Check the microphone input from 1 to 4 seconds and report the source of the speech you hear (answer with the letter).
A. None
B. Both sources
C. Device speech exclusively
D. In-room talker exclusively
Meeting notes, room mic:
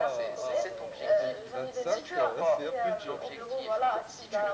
B